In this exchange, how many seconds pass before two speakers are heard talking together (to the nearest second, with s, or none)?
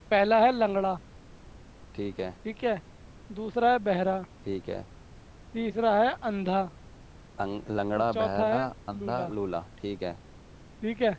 8 s